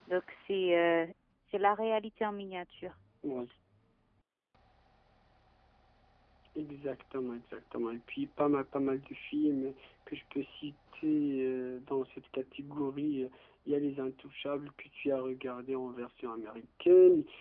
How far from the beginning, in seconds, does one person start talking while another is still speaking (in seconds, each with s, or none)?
none